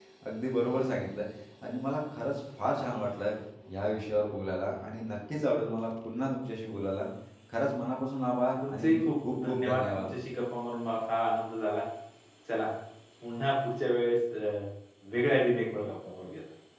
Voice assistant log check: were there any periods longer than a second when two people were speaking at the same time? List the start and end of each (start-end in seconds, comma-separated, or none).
8.7-10.0